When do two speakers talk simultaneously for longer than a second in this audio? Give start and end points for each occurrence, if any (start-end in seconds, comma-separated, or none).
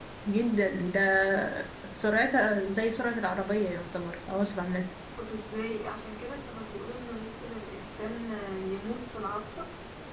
none